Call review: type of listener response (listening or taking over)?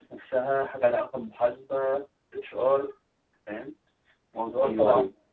taking over